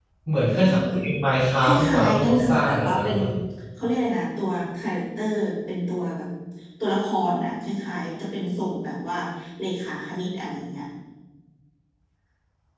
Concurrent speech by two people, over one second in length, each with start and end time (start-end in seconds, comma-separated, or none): 1.6-3.2